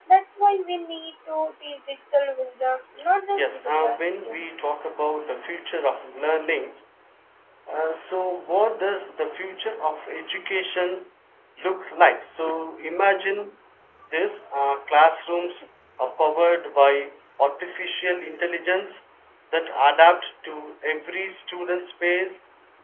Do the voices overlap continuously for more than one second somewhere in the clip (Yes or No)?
Yes